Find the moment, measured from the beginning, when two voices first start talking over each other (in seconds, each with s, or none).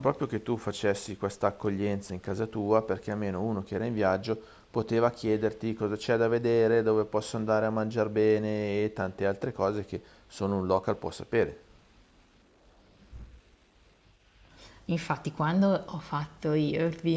none